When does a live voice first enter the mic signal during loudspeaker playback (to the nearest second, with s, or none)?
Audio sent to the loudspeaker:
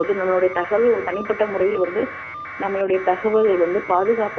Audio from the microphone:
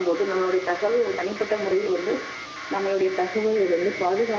none